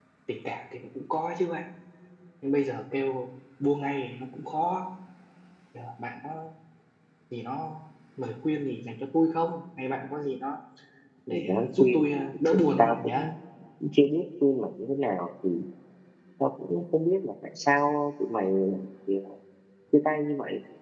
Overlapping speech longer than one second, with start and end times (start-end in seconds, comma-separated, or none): 11.3-13.3